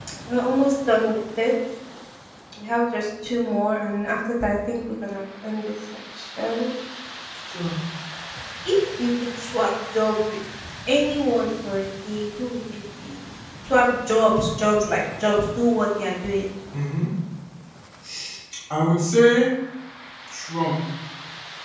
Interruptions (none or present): none